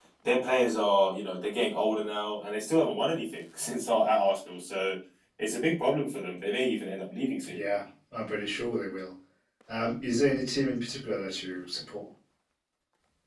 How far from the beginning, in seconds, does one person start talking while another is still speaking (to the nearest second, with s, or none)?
none